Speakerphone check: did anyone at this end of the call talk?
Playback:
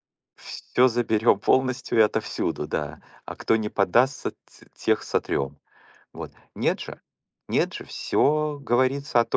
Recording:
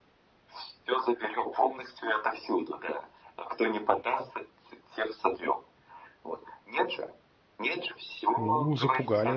Yes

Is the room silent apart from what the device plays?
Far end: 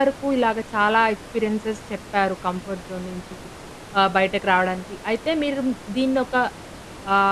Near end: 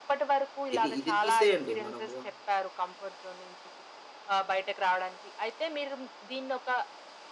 No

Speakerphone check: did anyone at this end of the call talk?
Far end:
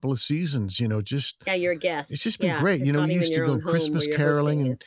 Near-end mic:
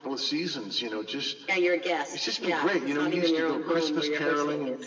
No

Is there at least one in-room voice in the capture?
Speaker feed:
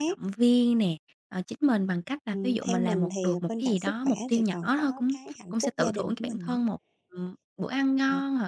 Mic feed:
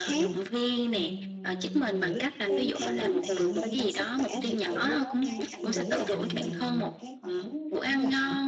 Yes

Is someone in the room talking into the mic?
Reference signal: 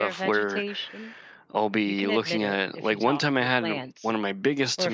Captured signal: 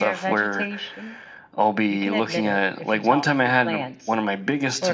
No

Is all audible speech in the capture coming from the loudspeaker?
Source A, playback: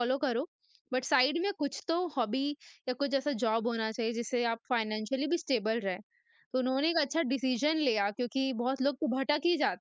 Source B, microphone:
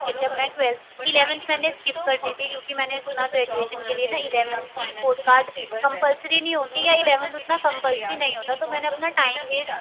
No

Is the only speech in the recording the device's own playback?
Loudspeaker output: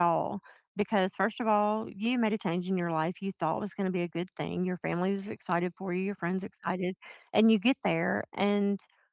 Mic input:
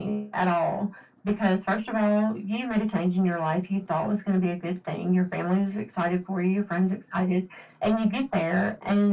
Yes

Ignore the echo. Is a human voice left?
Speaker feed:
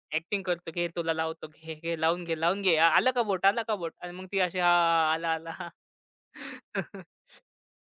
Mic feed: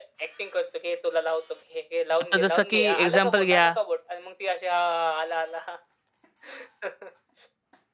Yes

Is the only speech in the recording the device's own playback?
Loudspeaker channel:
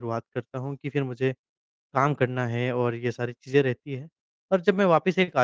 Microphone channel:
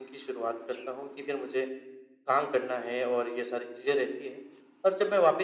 Yes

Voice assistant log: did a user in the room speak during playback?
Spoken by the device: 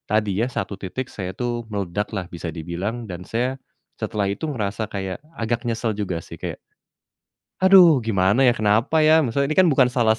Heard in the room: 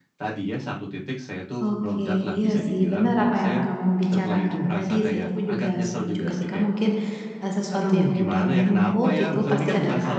Yes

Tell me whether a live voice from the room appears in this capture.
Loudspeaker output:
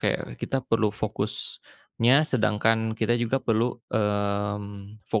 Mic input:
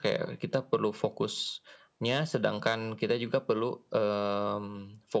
No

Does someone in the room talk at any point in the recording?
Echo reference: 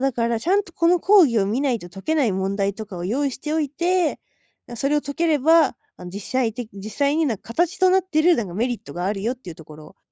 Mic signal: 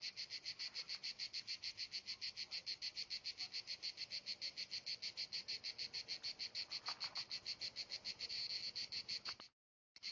No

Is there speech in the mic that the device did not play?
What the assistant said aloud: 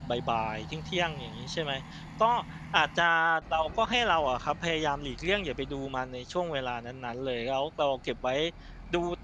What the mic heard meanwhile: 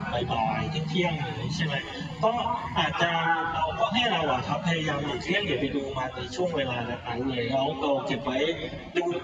No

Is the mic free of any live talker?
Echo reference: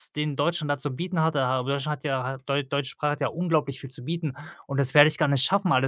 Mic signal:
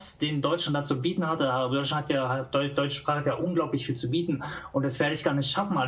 Yes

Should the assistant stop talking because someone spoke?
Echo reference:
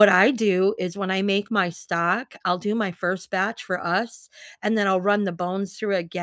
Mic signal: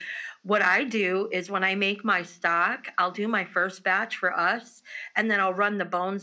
No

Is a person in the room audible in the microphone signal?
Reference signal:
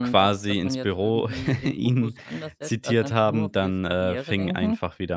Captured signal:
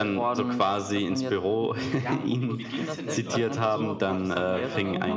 Yes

